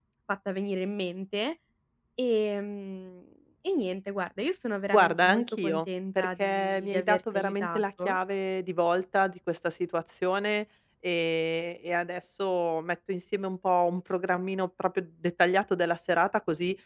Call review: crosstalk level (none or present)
present